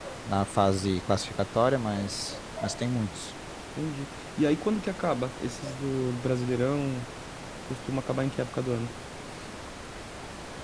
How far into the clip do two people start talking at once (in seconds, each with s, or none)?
none